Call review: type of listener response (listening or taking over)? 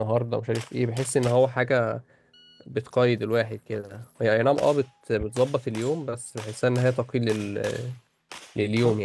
taking over